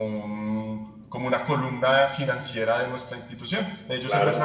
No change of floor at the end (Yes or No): Yes